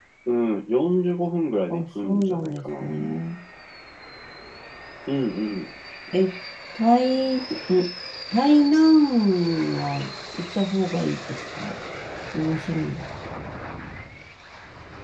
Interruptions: present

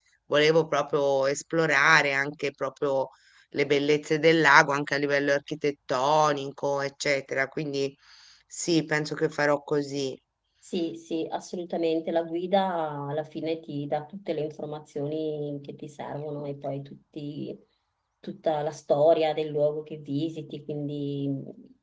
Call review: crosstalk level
none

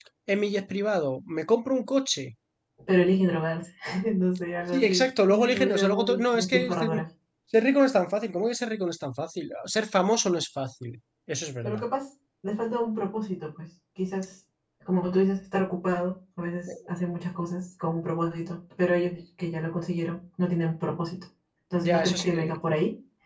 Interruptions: present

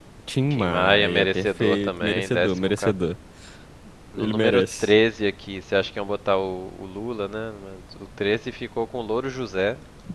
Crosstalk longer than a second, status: present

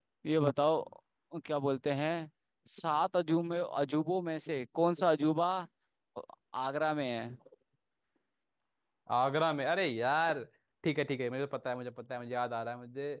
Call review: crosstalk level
none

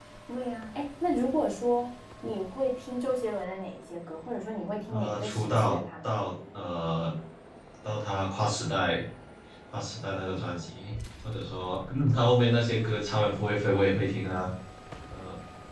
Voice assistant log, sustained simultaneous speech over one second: present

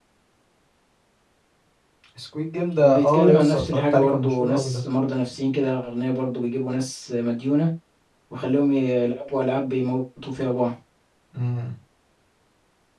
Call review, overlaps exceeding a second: present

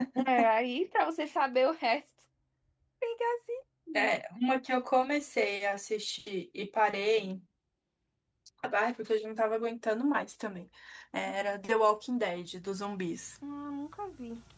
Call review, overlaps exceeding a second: none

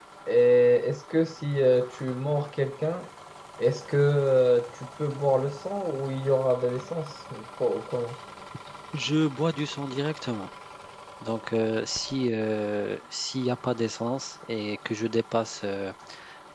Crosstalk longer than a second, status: none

